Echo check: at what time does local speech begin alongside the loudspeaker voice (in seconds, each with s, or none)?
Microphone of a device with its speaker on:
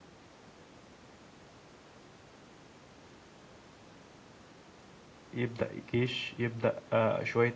5.3 s